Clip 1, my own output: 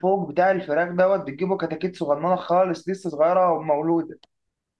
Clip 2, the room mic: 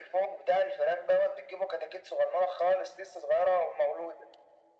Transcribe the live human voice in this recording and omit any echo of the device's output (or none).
none